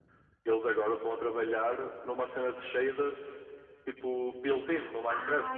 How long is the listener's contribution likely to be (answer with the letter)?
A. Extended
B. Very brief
A